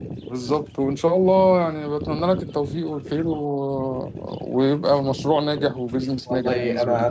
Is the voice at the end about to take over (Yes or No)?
Yes